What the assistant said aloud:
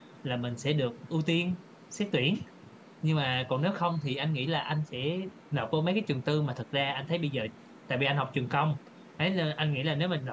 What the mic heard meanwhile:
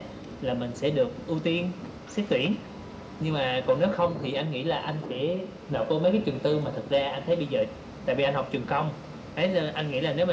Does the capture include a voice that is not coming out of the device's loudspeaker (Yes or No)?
No